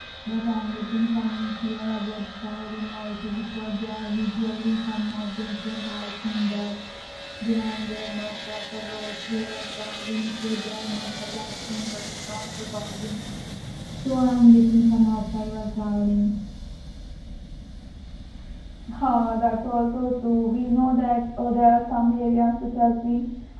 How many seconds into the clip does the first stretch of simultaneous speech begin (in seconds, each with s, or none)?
none